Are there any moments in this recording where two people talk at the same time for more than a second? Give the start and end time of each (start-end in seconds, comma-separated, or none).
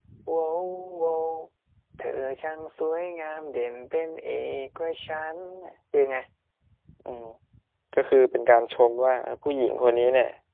none